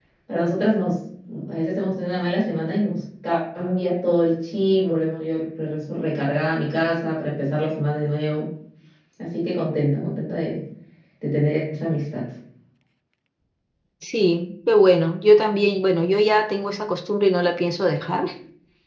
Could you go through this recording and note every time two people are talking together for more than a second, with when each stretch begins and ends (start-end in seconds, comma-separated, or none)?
none